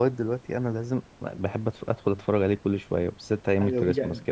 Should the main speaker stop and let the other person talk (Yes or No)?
Yes